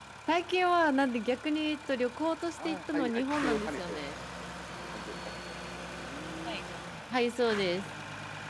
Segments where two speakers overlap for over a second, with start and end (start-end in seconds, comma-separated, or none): 2.6-4.0